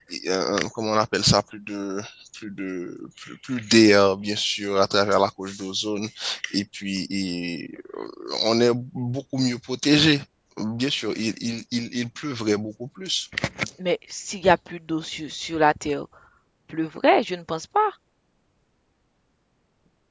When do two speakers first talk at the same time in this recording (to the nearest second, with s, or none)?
none